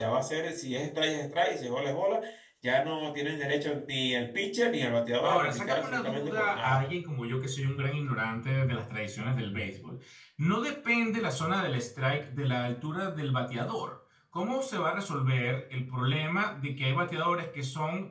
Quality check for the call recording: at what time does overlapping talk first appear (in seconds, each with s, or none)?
5.2 s